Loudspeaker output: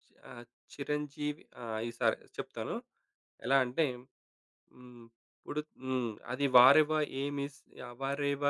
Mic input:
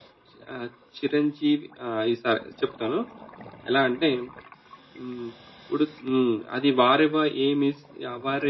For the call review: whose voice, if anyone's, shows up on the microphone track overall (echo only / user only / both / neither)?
echo only